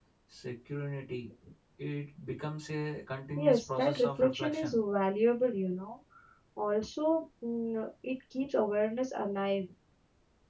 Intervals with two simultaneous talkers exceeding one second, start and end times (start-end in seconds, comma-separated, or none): 3.4-4.8